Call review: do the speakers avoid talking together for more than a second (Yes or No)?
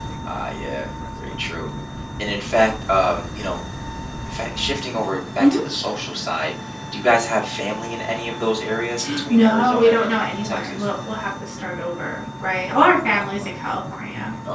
No